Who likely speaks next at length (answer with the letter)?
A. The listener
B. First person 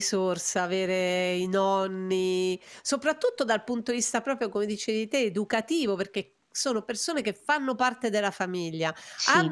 B